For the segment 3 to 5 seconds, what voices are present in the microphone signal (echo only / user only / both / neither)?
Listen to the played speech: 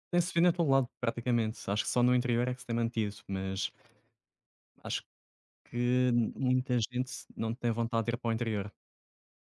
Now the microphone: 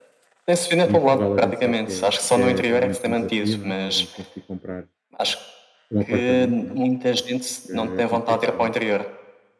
both